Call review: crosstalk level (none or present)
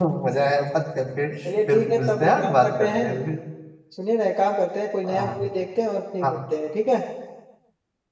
present